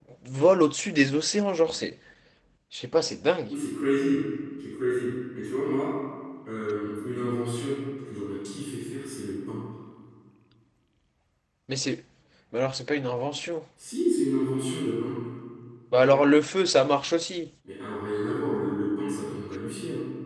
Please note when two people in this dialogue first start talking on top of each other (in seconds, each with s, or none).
none